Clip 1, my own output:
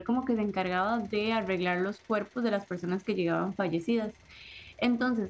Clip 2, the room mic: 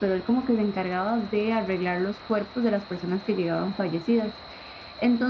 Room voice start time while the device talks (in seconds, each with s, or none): none